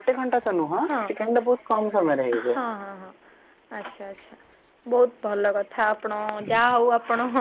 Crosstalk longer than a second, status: none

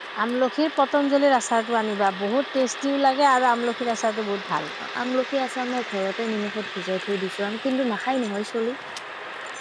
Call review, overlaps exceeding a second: none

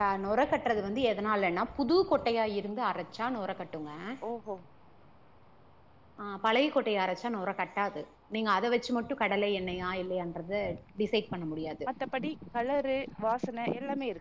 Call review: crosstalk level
none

